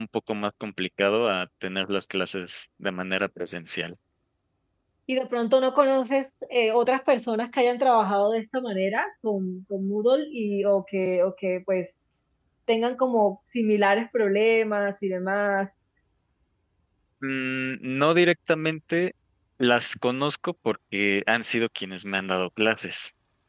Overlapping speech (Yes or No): No